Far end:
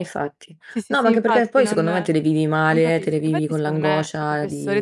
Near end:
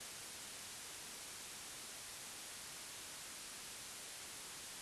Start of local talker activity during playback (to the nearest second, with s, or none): none